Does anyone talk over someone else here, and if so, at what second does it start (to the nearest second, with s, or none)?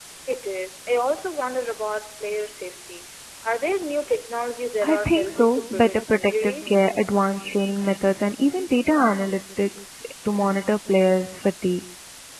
5 s